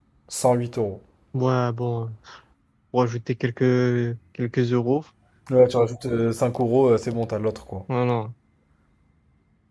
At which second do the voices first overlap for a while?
none

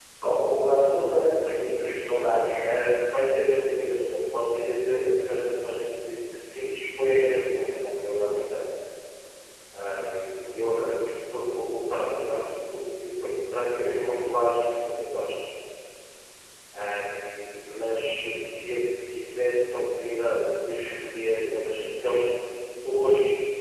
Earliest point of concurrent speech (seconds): none

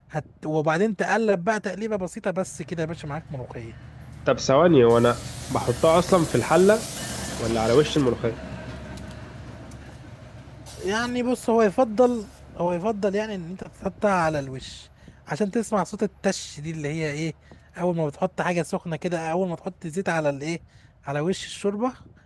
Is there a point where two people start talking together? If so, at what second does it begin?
none

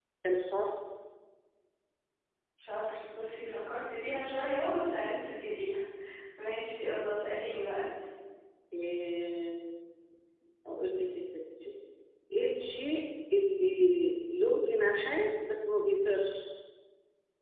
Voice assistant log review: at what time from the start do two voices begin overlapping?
none

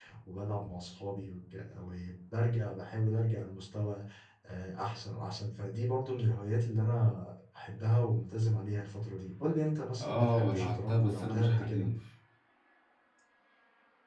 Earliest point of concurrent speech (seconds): 10.0 s

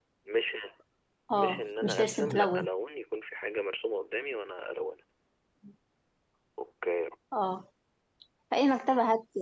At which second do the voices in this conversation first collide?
1.4 s

